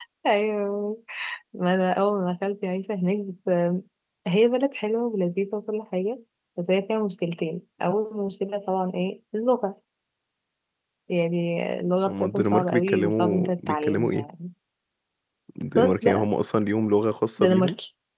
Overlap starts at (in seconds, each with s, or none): 12.1 s